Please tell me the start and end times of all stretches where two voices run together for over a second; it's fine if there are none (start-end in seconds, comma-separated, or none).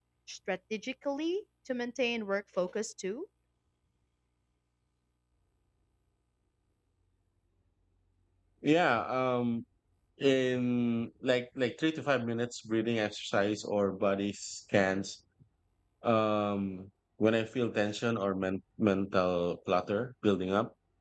none